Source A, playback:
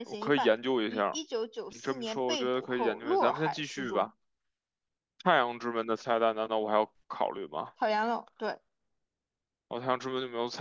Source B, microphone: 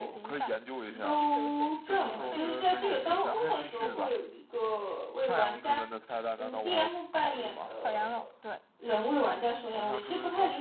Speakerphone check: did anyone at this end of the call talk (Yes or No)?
Yes